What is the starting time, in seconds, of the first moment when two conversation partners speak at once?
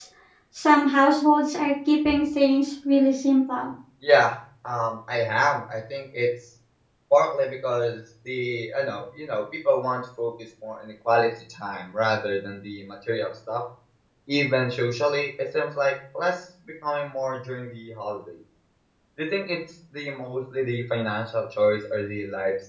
none

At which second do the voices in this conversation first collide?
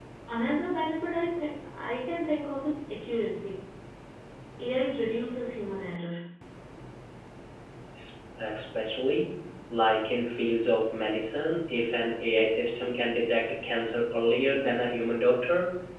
none

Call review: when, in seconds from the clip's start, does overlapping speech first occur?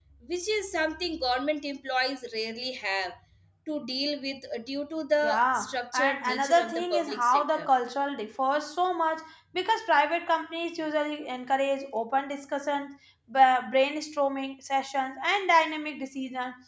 5.2 s

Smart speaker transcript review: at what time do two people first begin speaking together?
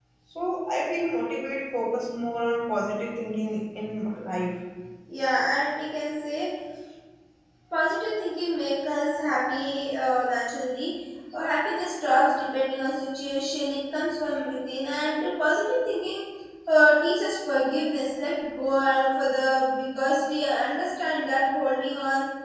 none

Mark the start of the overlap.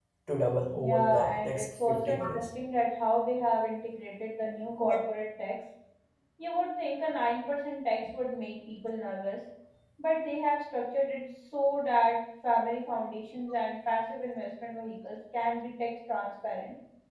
0.8 s

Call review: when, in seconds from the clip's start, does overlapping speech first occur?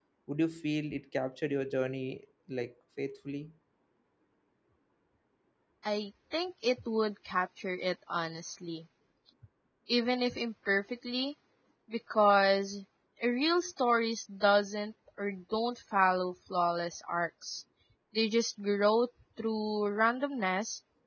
none

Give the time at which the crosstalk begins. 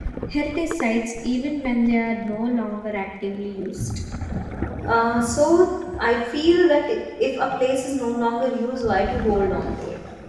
none

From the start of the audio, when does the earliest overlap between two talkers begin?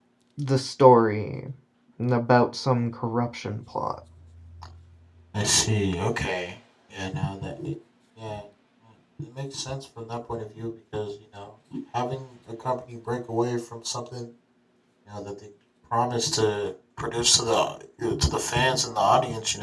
none

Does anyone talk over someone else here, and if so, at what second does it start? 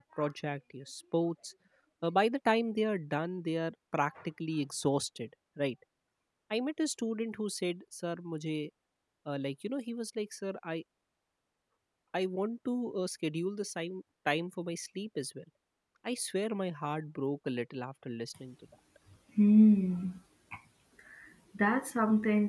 none

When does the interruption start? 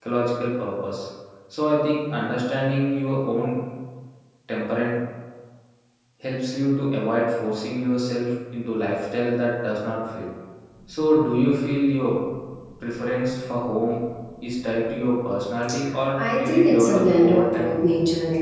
16.2 s

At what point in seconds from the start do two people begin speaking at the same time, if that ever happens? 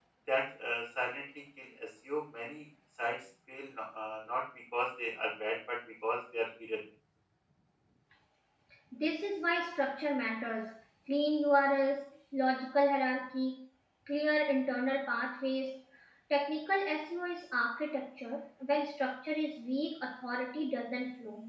none

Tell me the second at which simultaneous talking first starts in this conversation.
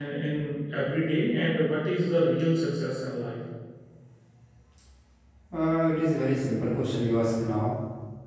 none

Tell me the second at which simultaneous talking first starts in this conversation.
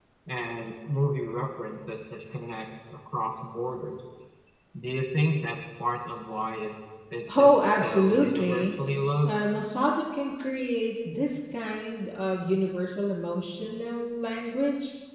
7.4 s

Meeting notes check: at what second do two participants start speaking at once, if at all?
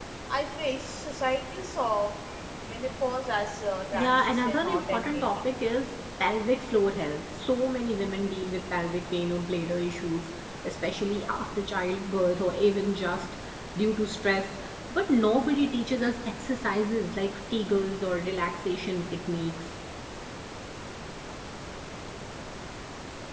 3.9 s

